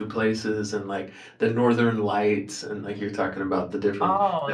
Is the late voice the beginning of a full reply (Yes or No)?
Yes